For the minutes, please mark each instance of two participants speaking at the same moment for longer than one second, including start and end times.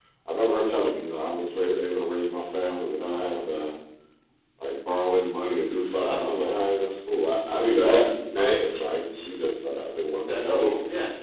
none

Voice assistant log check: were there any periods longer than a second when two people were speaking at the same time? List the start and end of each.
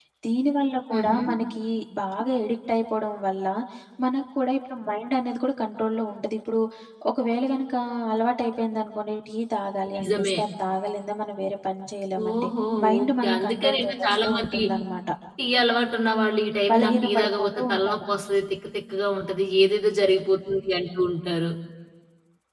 13.0-14.6, 16.7-18.1

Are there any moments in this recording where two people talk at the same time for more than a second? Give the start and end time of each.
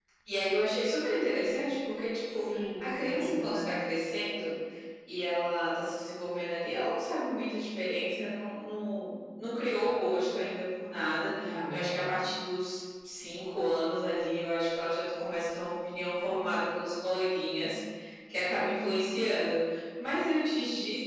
2.3-3.7

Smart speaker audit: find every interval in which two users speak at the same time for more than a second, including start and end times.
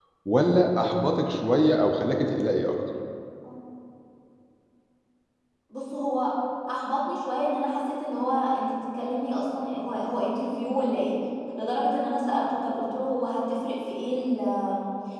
none

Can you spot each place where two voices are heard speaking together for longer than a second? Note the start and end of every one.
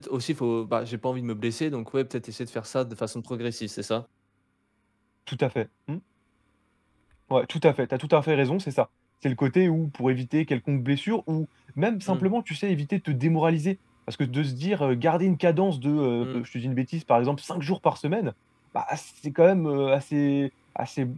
none

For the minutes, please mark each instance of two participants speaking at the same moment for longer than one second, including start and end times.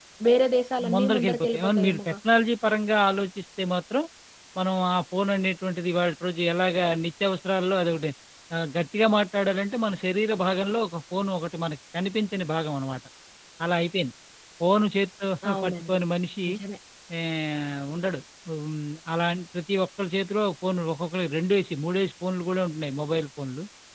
0.9-2.1

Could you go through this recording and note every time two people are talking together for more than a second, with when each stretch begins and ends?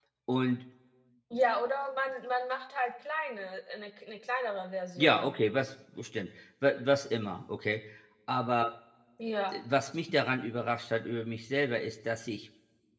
none

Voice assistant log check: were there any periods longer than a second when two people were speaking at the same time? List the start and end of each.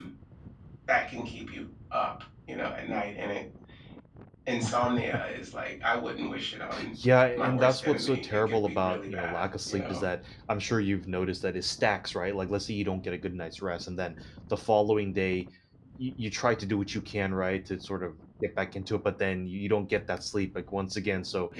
7.4-10.0

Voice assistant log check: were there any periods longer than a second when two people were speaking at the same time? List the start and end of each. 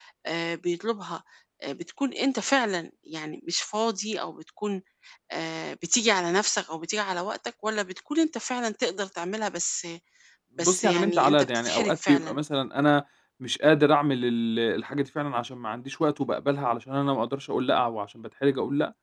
10.6-12.4

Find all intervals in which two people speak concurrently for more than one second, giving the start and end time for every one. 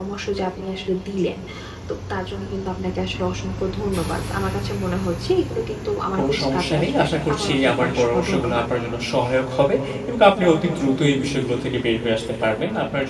6.2-8.6

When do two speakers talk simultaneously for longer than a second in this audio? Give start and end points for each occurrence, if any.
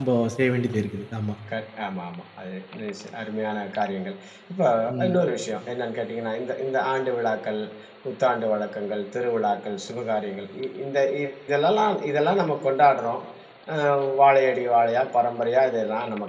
none

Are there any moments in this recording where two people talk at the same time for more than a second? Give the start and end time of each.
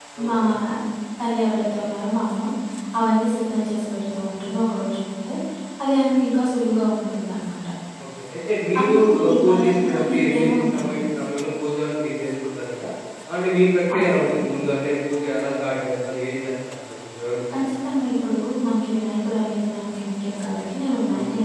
8.8-11.0

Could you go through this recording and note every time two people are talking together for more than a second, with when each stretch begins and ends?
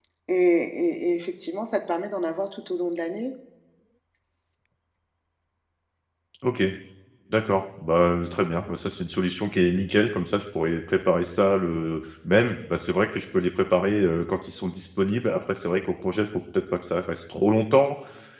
none

